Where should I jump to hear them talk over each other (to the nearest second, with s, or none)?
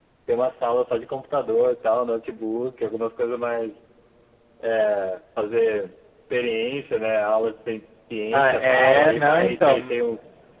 8 s